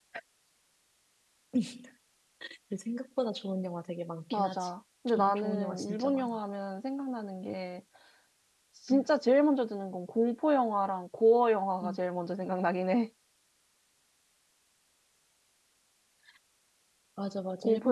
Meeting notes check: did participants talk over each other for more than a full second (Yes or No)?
Yes